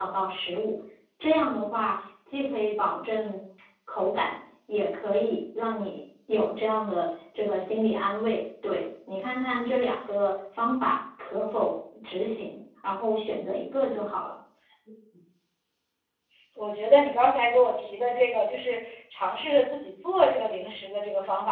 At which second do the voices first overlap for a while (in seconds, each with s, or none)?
none